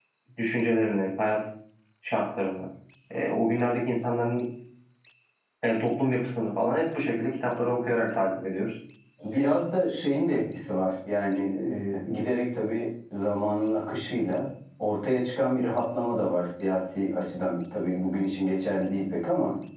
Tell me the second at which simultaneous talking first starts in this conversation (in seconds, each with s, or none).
none